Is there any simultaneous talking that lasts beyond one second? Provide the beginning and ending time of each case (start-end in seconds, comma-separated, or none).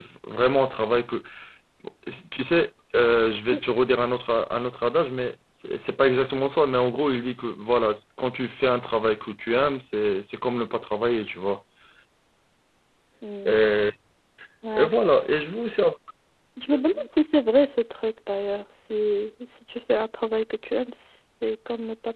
none